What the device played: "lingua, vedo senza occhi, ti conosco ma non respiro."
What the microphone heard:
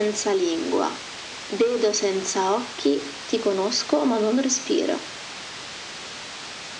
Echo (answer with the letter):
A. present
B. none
A